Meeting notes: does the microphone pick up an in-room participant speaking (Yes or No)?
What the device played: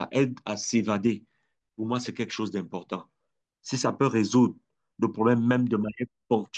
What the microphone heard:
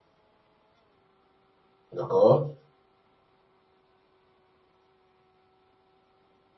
Yes